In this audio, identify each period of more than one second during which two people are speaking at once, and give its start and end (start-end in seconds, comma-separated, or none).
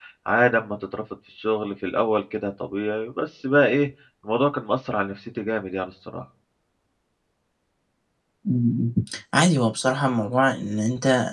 none